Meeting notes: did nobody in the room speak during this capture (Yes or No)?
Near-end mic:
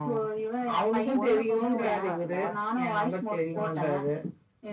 No